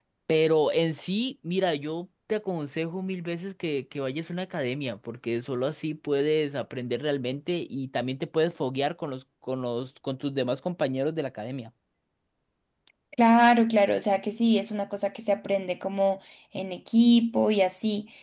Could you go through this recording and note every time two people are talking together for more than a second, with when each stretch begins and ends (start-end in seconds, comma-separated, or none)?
none